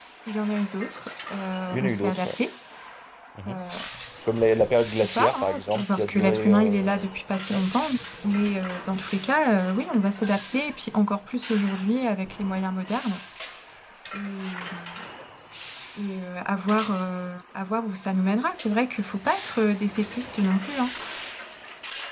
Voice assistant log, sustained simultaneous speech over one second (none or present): present